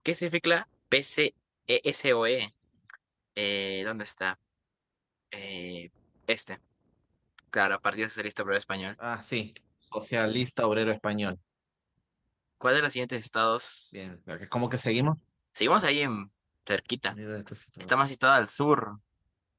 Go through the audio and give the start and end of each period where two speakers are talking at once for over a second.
none

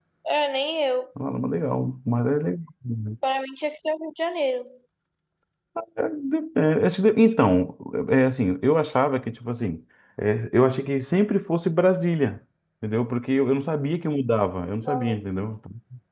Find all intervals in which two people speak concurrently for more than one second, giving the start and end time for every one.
none

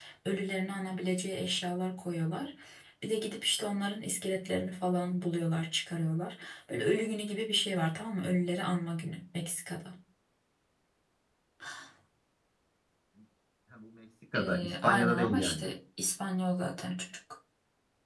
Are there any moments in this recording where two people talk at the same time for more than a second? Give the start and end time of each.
14.4-15.6

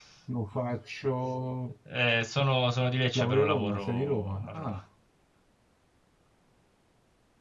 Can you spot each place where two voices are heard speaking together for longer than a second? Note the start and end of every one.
3.1-4.8

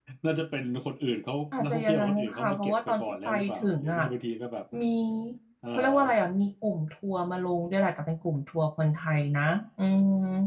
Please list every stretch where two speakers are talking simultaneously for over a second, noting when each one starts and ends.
1.5-4.0

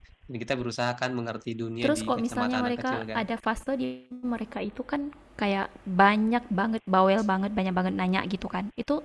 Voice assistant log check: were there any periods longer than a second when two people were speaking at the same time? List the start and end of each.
1.8-3.2

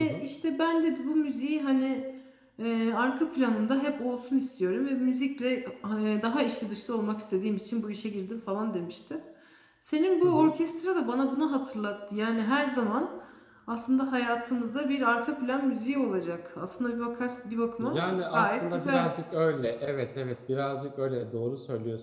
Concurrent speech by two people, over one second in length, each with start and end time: 17.8-19.1

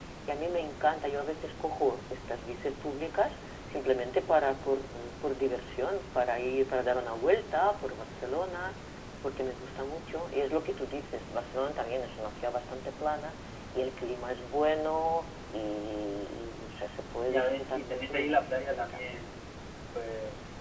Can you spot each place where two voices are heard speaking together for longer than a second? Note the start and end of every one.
17.3-18.8

